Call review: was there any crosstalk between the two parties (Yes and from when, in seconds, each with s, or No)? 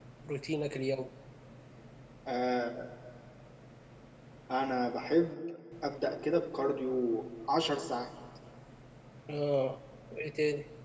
No